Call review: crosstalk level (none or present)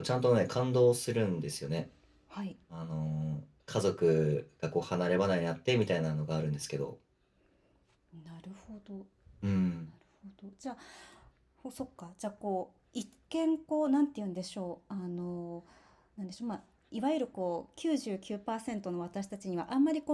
none